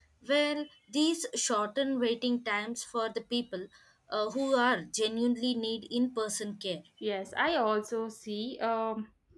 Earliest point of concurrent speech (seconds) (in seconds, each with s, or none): none